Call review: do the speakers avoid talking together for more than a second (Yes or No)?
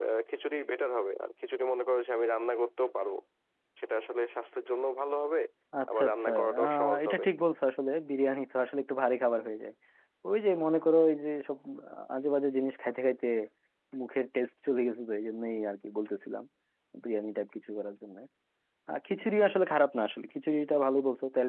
No